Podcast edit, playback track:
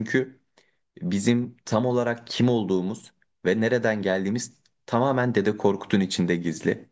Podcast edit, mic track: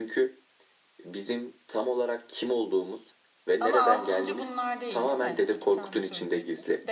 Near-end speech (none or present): present